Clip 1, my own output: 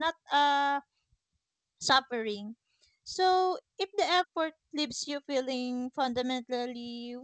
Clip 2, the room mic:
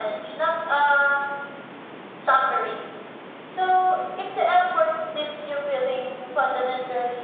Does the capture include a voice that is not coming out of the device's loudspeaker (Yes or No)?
No